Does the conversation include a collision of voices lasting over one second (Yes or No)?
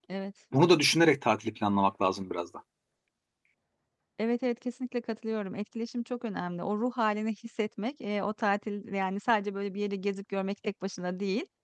No